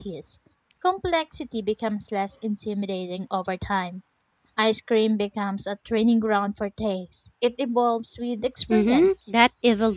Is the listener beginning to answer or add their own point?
Yes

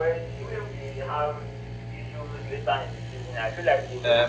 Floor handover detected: Yes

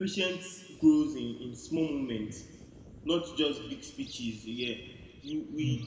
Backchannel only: Yes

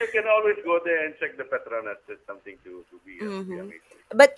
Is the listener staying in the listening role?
No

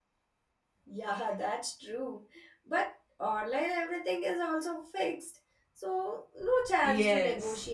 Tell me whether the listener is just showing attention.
No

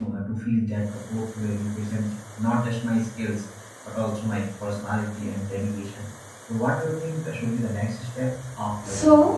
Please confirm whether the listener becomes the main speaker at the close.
Yes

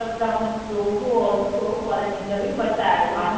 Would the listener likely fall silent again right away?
Yes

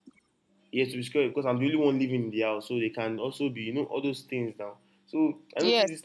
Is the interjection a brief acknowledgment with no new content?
Yes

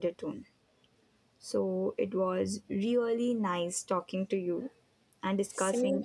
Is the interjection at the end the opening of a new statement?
No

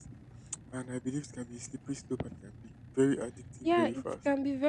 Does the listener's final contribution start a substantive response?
Yes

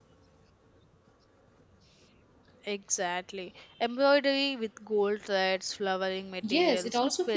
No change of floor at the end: No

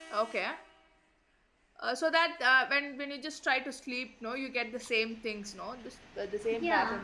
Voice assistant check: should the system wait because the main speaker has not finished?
No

